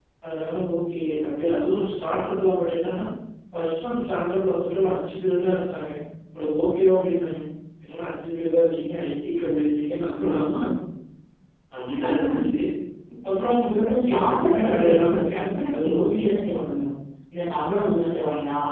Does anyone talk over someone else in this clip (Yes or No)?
Yes